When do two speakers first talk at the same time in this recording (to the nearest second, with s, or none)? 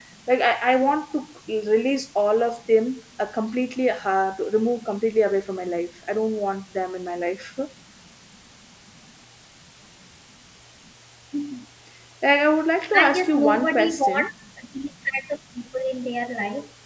13 s